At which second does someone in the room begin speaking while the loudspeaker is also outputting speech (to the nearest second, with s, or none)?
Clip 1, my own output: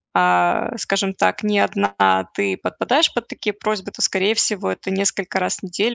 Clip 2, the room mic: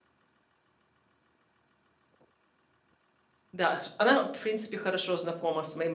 4 s